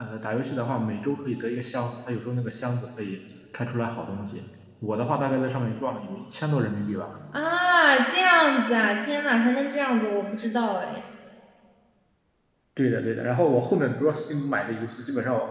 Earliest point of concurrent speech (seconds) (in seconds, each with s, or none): none